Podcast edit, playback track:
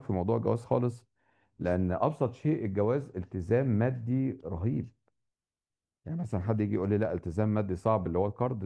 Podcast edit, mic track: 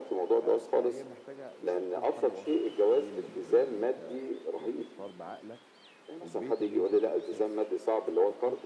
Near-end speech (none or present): present